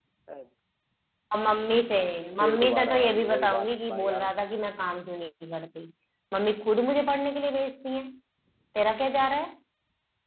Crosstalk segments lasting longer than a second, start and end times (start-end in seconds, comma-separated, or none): 2.4-4.3